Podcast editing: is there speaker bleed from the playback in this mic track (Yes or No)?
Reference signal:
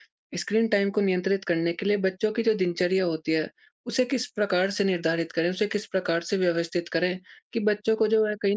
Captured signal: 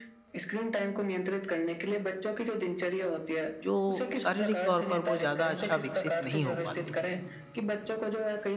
Yes